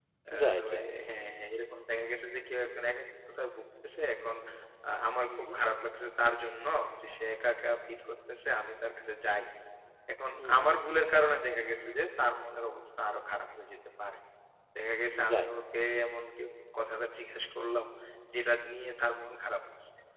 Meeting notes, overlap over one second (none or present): none